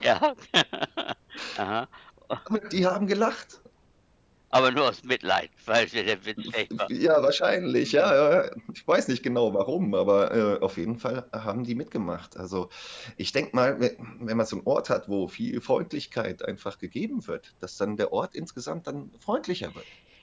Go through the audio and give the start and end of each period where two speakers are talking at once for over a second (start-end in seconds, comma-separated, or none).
none